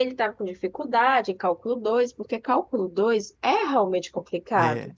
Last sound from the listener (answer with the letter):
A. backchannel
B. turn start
B